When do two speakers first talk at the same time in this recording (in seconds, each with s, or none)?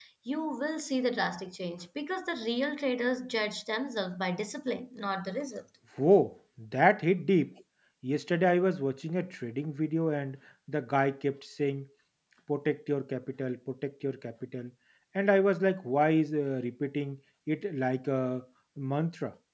none